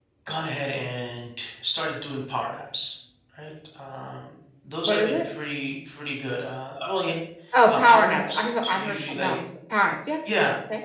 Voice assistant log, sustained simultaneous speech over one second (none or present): present